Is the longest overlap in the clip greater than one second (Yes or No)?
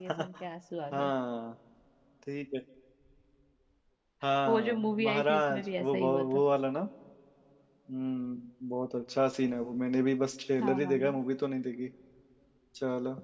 Yes